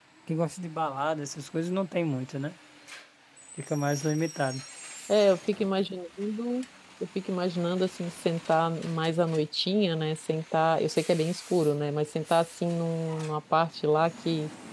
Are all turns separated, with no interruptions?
Yes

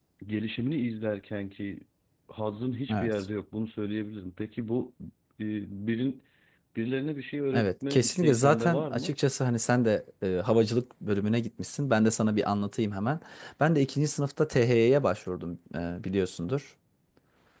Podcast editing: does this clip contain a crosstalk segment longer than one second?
Yes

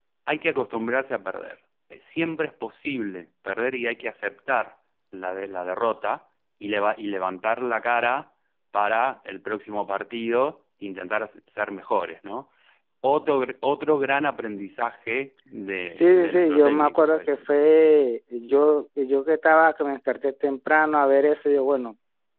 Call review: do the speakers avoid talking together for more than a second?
No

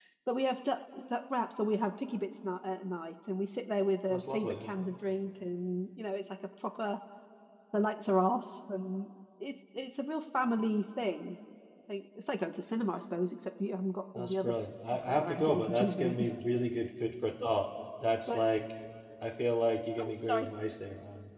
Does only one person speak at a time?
No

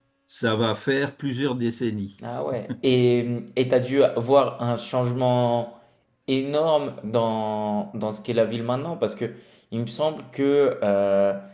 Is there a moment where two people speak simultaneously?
No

